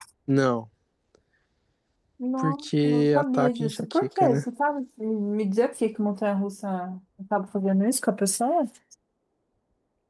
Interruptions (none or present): present